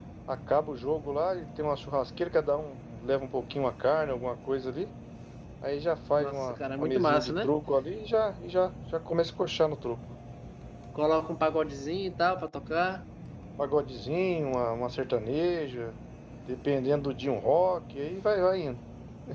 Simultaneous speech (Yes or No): Yes